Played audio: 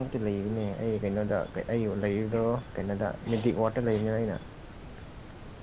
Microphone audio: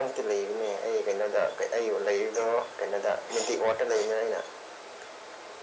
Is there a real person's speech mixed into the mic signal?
No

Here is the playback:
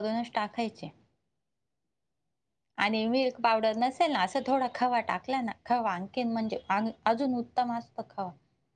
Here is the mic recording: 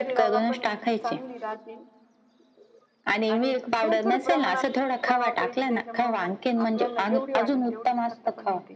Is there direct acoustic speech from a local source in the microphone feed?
Yes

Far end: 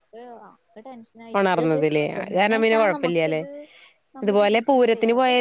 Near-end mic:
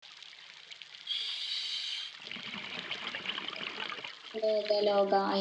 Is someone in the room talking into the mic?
Yes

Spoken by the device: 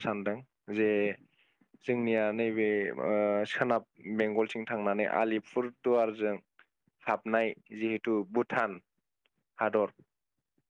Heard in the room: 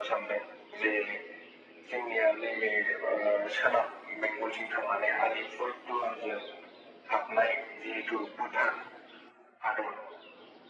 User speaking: No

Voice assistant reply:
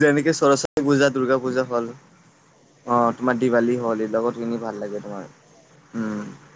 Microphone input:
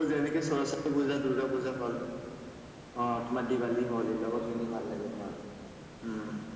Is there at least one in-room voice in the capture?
No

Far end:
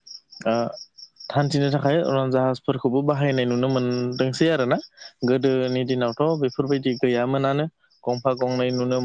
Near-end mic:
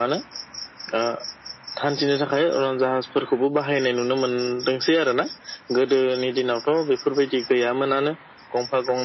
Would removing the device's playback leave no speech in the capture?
Yes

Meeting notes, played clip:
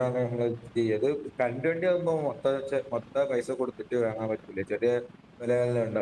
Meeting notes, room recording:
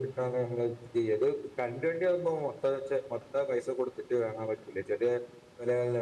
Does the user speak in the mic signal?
No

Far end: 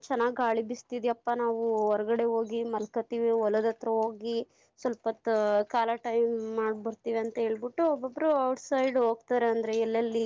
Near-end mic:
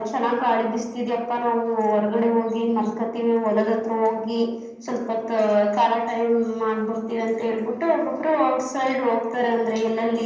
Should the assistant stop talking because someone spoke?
No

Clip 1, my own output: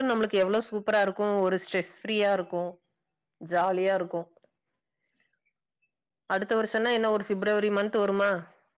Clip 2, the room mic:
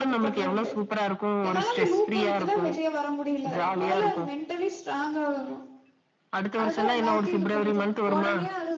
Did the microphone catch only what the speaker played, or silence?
No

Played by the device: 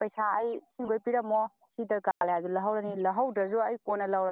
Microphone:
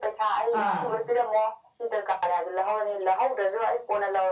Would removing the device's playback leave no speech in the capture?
No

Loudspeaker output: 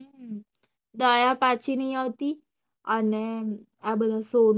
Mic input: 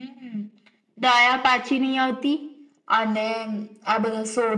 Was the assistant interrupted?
No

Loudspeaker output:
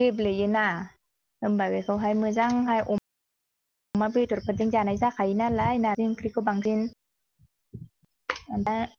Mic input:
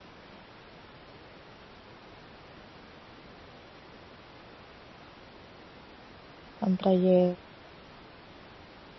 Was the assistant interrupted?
Yes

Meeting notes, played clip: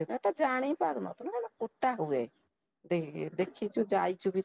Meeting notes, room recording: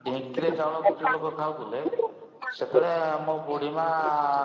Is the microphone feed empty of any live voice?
No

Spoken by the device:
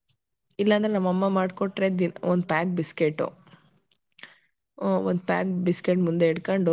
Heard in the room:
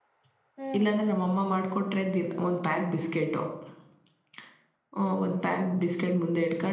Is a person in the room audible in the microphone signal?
Yes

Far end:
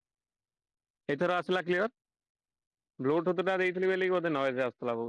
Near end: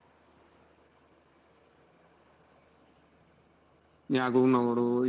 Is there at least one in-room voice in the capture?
Yes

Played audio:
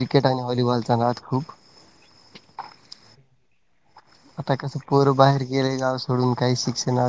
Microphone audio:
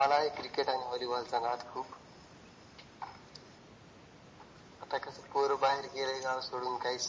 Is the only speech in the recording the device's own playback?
Yes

